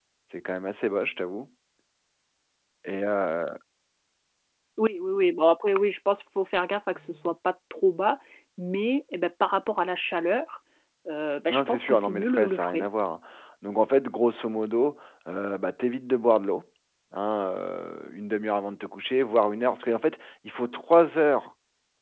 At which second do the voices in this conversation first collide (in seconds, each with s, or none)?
11.5 s